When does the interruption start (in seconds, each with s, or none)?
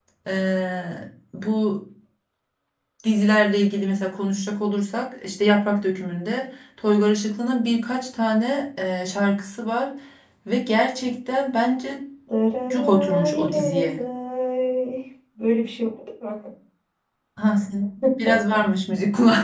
12.7 s